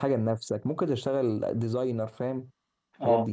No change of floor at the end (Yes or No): No